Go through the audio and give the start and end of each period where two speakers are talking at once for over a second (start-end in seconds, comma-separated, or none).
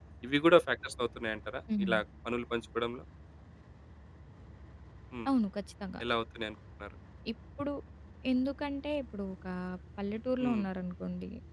none